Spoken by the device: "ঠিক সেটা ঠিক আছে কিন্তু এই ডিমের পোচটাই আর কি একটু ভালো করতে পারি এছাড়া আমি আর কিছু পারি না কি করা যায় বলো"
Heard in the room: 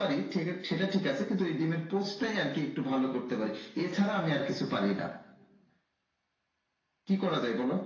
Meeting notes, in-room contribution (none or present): none